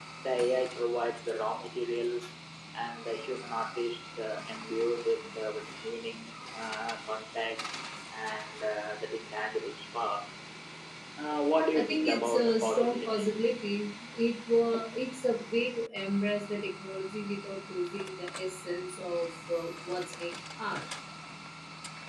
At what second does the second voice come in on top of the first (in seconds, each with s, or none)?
11.7 s